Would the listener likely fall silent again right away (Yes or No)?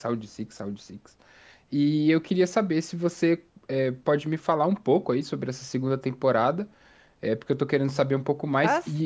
Yes